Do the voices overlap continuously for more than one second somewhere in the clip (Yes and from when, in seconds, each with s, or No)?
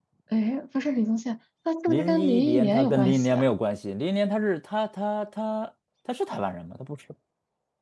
Yes, from 1.9 s